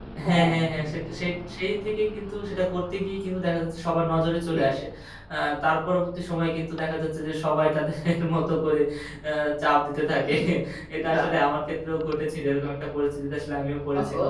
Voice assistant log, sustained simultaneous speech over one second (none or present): none